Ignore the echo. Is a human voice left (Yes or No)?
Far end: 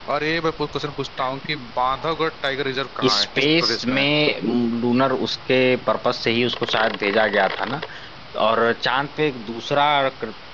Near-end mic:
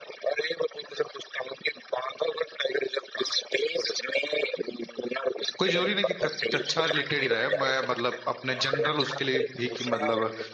Yes